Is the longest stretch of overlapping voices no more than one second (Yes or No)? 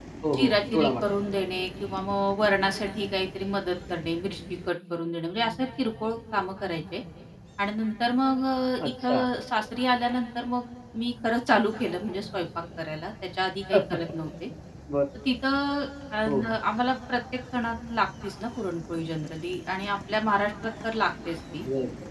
No